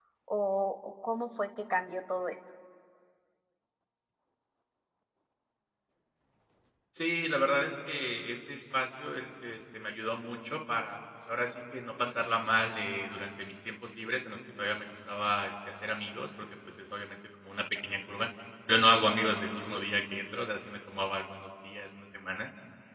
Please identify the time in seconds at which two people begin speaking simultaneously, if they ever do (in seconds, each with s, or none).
none